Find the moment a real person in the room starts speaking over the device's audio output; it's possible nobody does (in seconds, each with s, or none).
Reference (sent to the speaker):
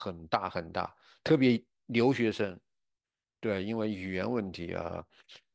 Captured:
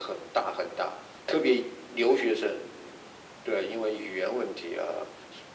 none